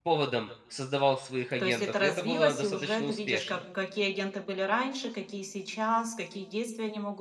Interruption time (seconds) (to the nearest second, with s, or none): 2 s